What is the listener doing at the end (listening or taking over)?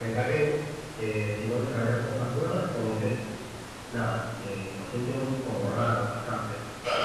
taking over